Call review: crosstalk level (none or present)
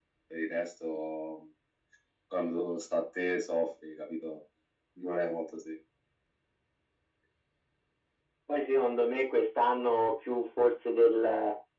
none